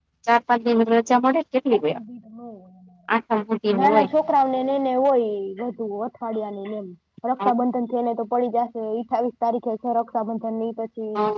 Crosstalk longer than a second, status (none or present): none